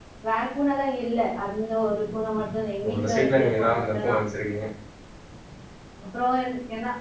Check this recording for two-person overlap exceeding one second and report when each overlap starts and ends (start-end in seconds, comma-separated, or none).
2.8-4.2